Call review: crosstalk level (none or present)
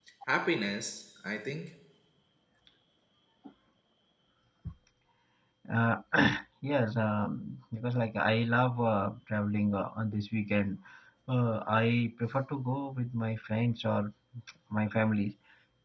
none